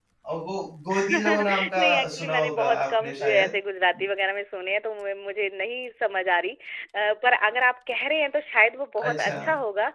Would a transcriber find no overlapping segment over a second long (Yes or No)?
No